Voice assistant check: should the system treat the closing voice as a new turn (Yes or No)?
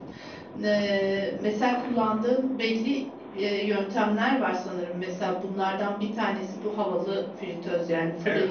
No